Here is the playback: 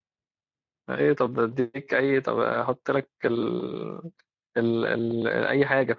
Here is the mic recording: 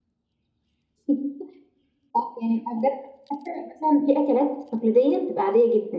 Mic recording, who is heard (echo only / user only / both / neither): user only